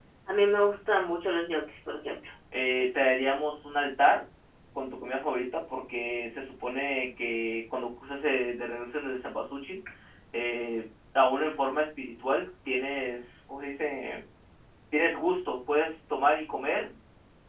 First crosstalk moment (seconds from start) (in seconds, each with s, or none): none